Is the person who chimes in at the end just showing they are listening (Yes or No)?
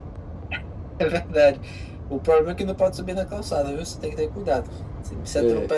Yes